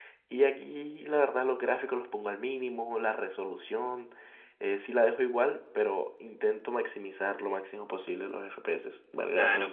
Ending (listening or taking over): taking over